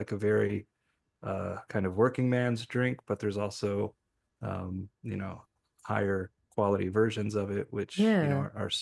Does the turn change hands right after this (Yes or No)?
No